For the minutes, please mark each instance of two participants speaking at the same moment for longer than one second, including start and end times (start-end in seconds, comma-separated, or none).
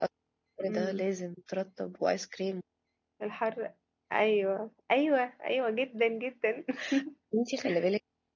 none